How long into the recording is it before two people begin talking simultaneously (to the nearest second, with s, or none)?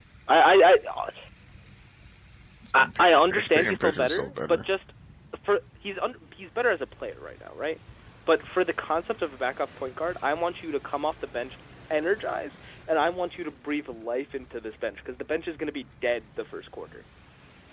3 s